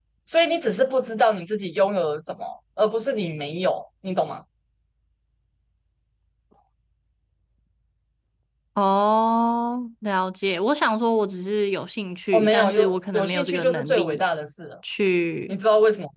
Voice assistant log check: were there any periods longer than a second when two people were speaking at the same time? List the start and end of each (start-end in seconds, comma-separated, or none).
12.3-14.2